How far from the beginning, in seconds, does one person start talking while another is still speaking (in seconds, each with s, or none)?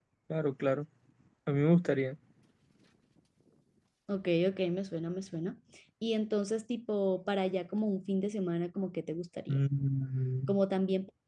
none